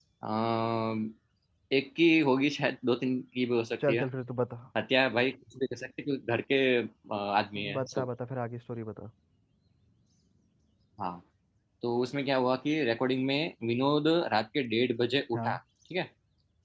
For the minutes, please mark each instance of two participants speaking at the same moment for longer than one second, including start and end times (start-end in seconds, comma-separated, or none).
none